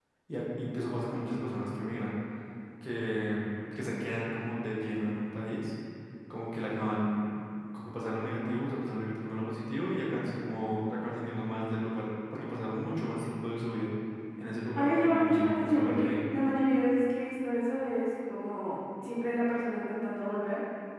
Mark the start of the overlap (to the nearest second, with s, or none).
15 s